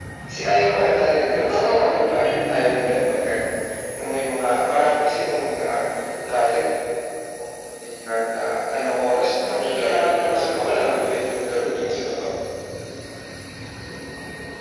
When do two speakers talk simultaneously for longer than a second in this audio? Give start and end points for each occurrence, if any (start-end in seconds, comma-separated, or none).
1.4-3.0, 9.4-10.9